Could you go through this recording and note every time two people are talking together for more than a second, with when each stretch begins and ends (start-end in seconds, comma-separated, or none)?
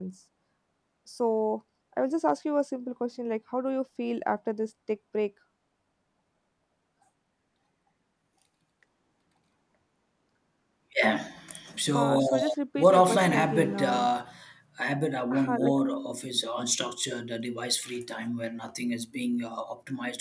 11.9-14.1